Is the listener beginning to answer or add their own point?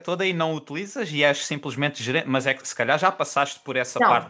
Yes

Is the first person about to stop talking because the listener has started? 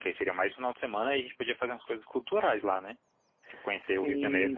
Yes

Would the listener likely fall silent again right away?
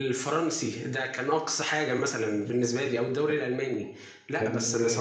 Yes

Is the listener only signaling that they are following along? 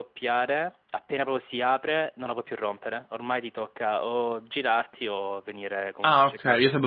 No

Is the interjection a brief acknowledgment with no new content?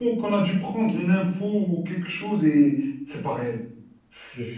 Yes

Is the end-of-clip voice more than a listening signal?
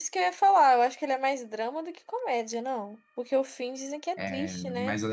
Yes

